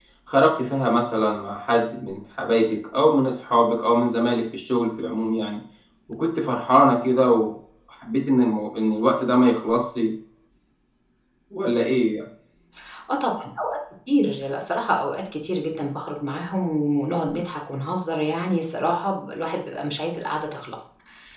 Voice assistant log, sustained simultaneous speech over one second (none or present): none